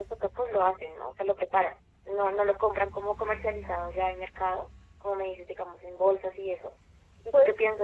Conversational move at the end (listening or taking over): listening